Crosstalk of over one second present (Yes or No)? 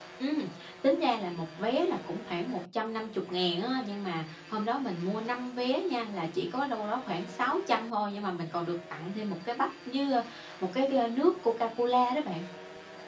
No